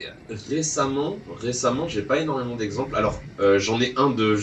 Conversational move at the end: listening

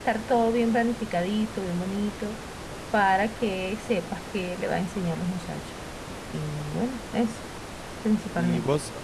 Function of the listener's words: taking over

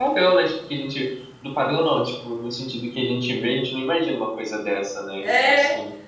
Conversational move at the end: taking over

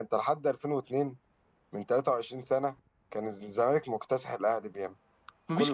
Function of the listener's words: taking over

